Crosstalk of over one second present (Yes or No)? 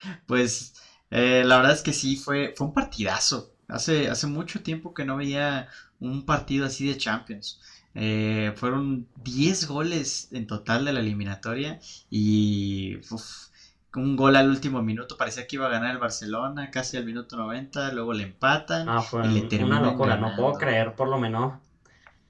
Yes